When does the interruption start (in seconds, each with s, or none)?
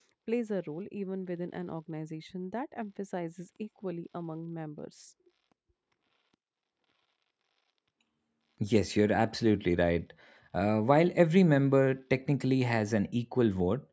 none